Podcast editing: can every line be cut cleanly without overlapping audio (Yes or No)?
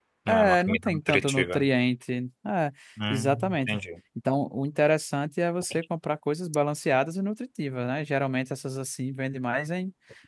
No